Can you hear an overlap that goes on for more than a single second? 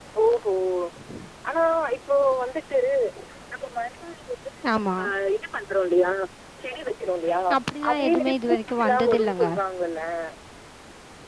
Yes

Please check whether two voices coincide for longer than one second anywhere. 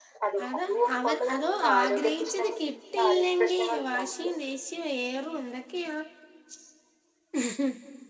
Yes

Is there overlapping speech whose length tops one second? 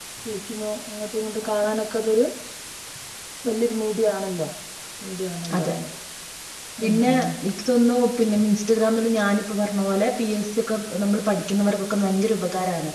No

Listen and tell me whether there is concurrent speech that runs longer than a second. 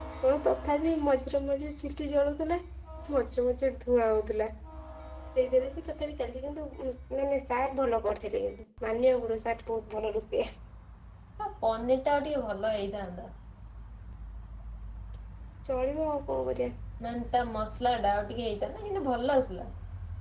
No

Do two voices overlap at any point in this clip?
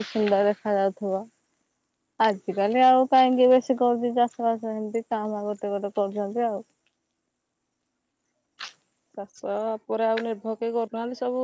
No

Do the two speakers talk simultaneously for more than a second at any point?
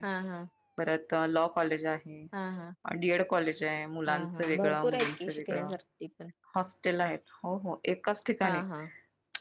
Yes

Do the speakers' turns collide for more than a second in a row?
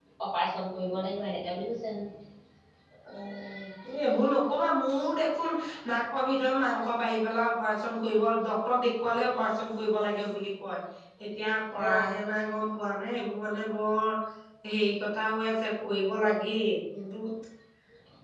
No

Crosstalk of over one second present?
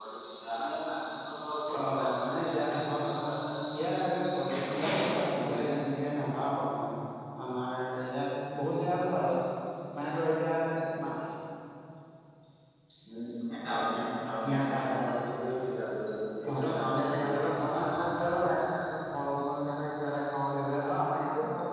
Yes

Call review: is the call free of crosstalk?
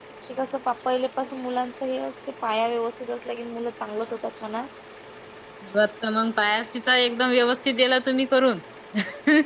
Yes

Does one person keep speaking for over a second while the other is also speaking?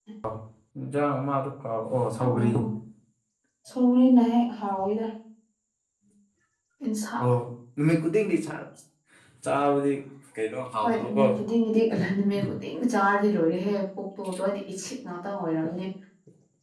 No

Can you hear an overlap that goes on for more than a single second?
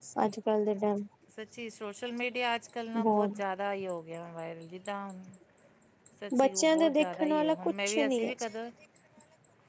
Yes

